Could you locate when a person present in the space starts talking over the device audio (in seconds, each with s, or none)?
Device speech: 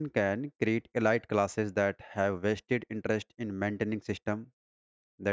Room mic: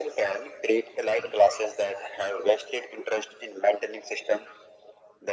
none